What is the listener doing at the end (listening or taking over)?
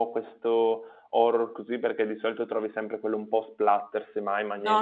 taking over